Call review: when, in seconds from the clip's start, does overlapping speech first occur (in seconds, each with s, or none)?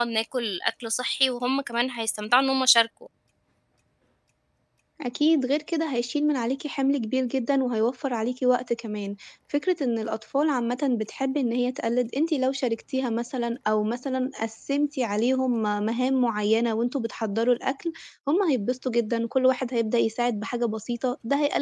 none